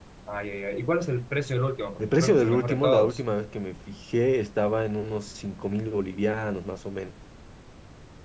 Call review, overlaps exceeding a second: present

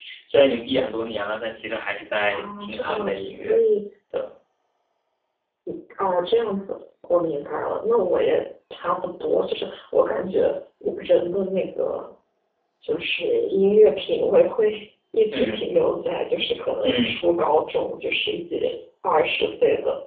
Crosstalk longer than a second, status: present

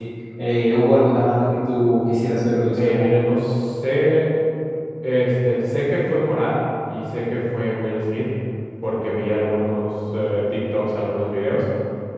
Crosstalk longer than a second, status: none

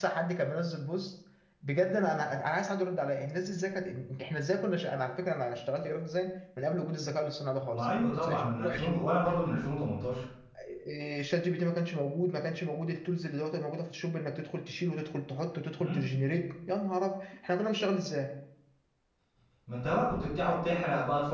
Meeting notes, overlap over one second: present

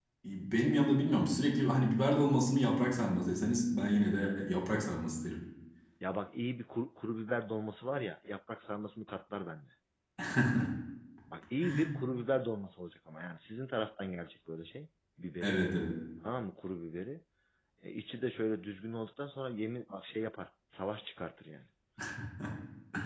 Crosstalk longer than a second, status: none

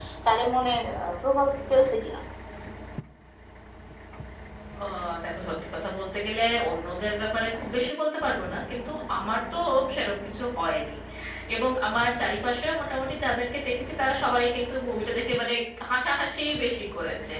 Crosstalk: none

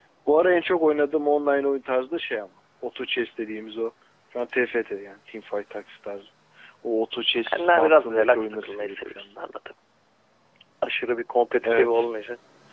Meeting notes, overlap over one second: present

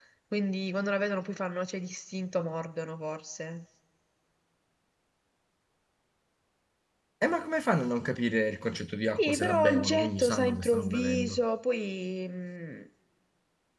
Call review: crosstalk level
present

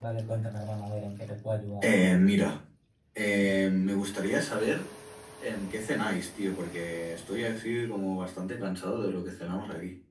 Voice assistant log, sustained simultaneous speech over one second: none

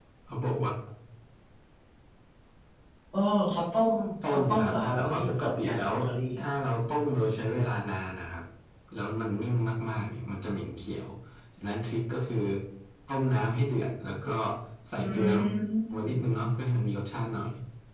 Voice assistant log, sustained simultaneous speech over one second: present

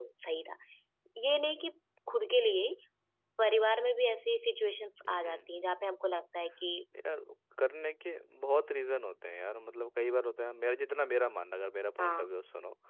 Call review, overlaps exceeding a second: none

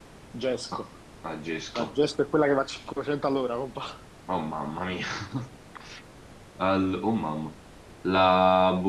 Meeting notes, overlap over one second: none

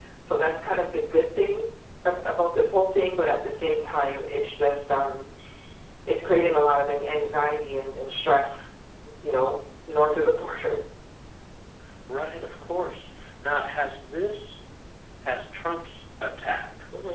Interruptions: none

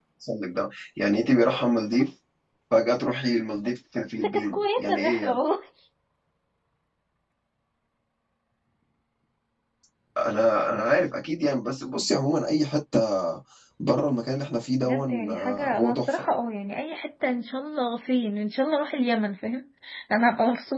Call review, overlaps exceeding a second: present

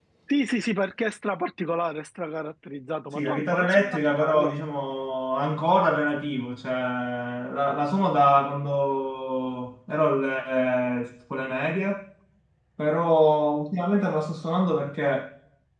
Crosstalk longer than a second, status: present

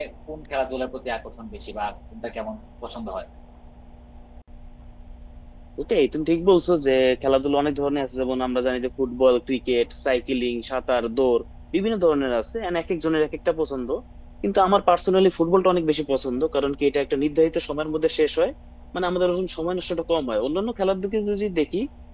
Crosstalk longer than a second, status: none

